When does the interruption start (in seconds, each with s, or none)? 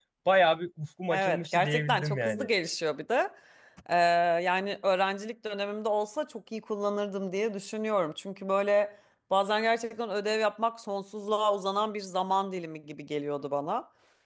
1.1 s